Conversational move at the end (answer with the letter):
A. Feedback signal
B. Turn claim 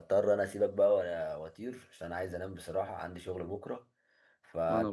A